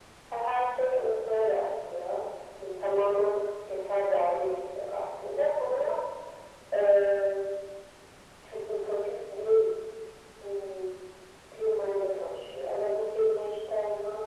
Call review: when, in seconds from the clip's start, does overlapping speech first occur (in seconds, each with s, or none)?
none